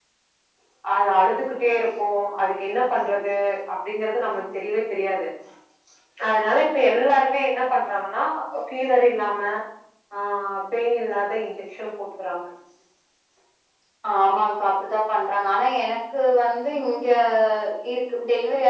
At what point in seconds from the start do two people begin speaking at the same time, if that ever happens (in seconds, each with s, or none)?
none